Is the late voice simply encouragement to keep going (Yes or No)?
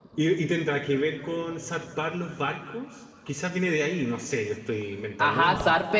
No